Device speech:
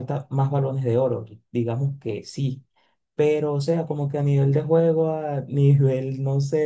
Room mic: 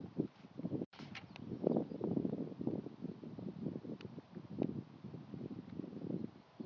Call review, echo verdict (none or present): none